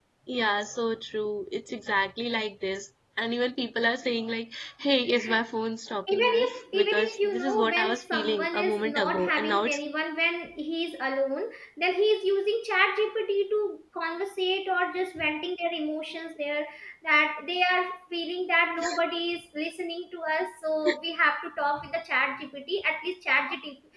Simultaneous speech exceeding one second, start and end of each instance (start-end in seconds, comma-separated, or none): 6.1-9.8